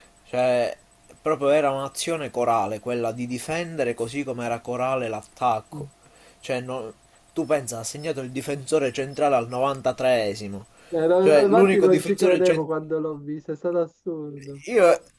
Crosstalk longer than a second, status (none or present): present